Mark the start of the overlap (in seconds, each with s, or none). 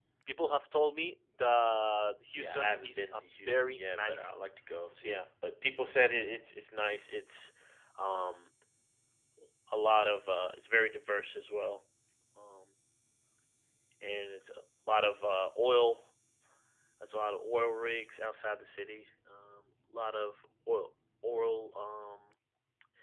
2.4 s